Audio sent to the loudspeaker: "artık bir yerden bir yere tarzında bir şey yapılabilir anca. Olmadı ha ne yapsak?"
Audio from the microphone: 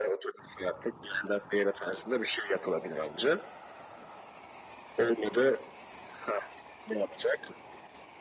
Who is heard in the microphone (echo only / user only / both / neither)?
echo only